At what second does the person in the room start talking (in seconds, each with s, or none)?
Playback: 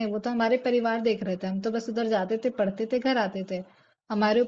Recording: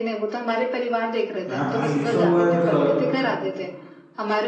1.5 s